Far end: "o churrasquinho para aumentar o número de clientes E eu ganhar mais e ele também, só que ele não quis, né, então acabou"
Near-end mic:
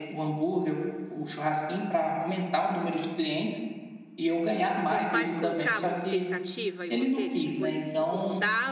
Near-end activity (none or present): present